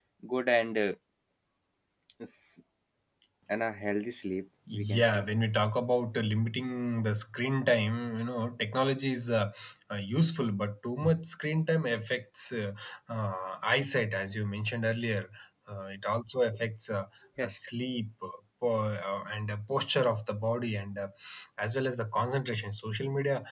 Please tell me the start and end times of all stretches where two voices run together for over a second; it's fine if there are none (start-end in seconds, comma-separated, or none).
none